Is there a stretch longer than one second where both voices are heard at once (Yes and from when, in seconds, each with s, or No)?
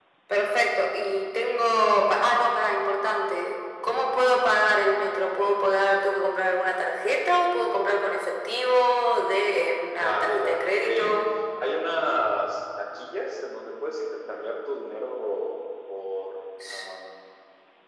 Yes, from 9.9 s